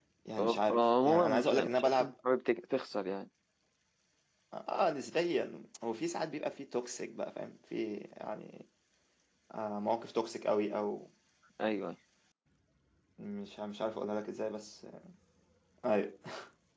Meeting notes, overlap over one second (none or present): present